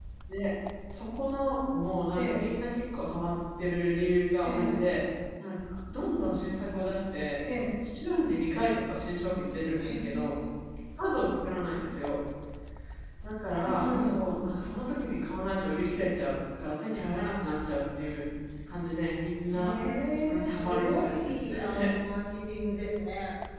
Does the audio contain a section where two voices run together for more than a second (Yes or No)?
Yes